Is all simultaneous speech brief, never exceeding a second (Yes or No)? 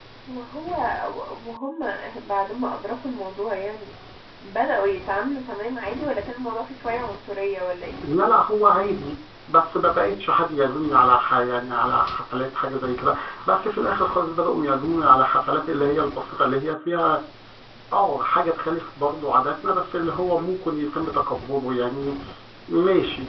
Yes